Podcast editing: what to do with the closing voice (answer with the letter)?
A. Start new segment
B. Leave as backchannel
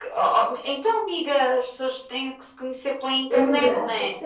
A